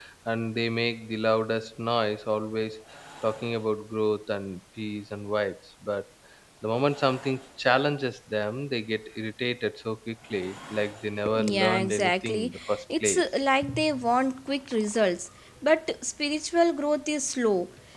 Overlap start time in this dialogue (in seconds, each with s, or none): 11.2 s